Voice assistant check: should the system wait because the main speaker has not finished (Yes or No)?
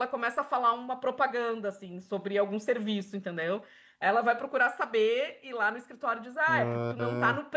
Yes